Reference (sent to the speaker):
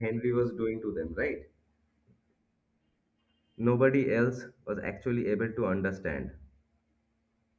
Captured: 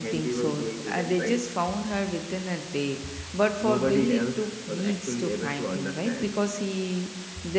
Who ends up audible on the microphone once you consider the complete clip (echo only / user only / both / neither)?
both